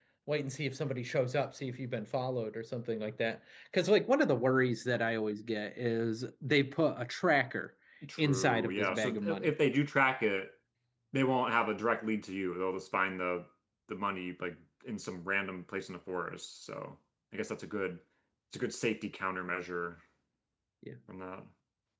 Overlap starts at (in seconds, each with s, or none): 8.2 s